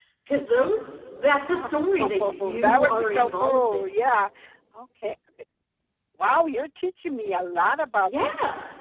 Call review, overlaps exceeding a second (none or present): present